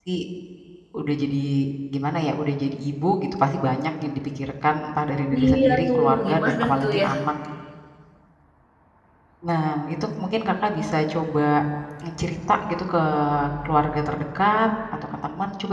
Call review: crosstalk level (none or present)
present